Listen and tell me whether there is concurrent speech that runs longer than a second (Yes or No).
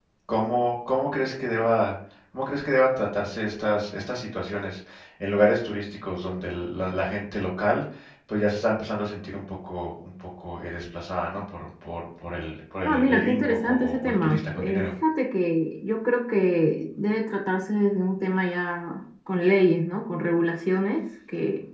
Yes